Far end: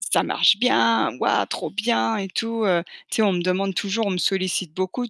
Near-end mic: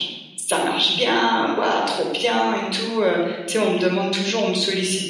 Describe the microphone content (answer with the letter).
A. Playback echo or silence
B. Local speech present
B